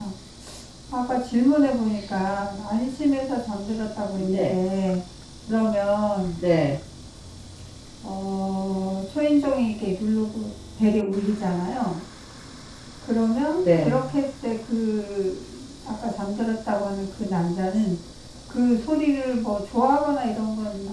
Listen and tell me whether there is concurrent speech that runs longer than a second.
No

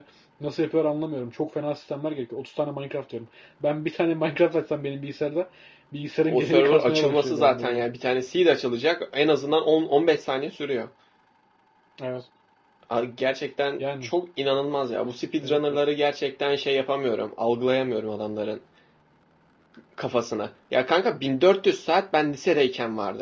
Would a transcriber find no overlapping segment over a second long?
No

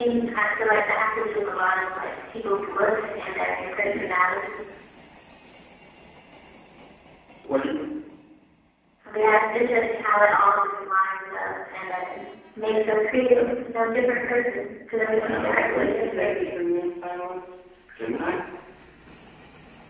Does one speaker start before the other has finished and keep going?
Yes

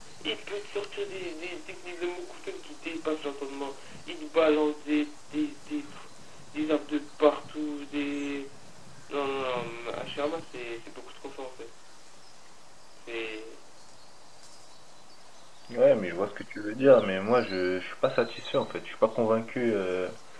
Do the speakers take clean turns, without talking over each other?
Yes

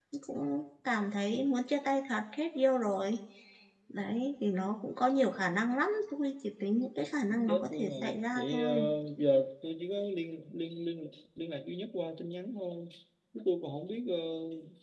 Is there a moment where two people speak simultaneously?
Yes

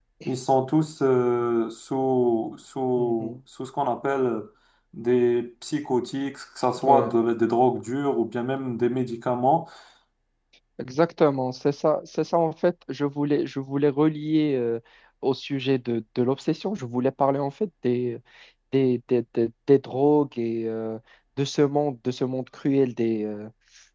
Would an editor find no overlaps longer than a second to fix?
Yes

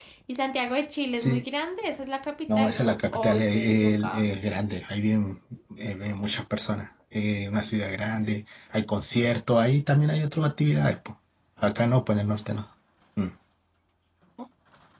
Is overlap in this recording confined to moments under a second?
No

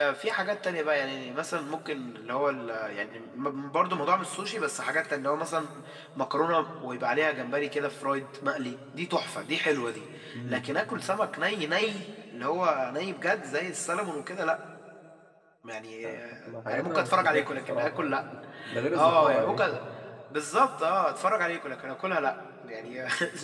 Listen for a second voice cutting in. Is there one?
Yes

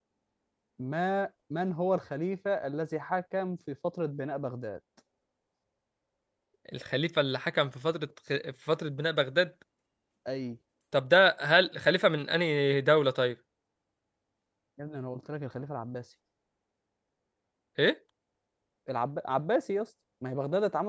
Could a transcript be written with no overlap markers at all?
Yes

